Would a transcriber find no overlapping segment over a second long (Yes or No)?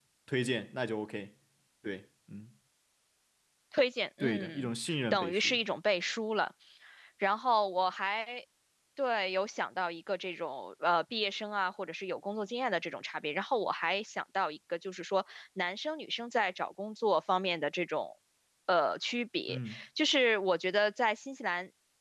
No